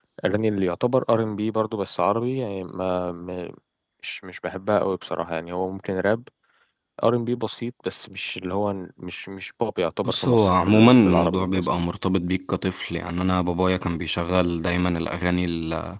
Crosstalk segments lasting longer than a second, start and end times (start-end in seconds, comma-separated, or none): 10.0-11.7